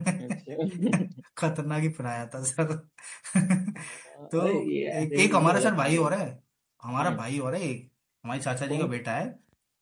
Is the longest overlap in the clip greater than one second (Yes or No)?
Yes